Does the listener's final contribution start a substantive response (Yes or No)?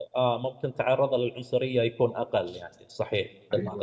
Yes